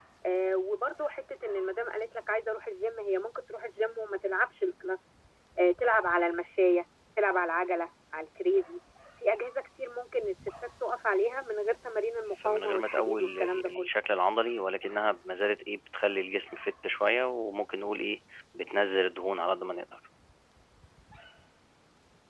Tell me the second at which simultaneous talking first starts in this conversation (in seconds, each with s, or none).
12.3 s